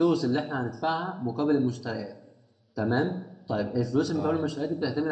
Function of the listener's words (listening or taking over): listening